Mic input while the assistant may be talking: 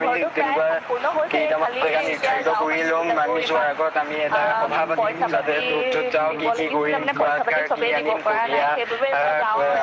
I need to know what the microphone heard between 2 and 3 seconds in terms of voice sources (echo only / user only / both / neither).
echo only